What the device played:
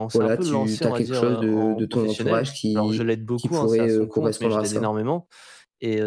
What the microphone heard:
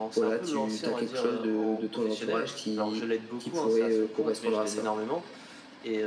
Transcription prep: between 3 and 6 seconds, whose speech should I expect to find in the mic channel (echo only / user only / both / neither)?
echo only